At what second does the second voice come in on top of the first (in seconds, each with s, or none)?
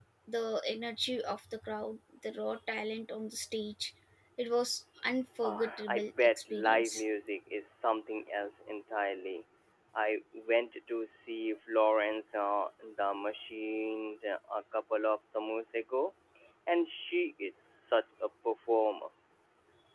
5.4 s